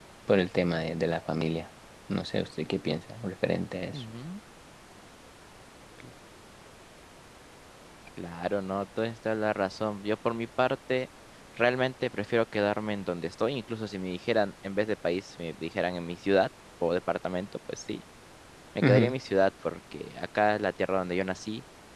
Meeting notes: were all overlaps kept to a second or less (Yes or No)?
Yes